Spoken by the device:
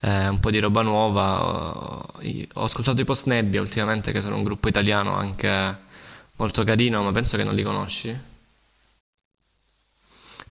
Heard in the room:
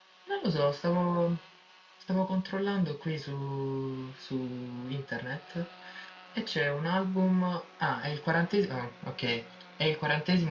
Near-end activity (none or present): present